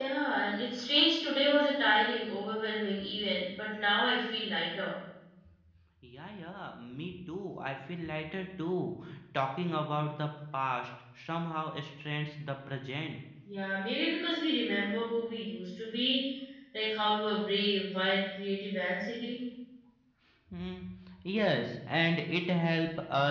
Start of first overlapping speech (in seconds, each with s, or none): none